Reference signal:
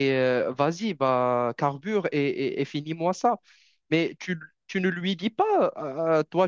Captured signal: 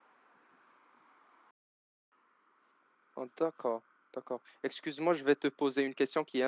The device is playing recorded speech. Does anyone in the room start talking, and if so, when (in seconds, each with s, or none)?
3.1 s